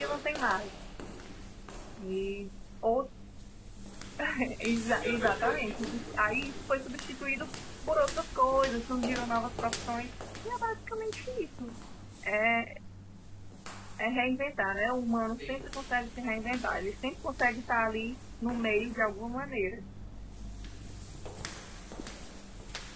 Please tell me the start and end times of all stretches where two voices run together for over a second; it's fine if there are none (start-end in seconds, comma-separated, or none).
4.6-6.1